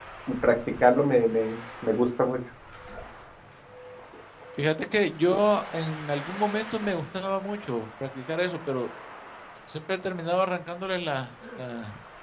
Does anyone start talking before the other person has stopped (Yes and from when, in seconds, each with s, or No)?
No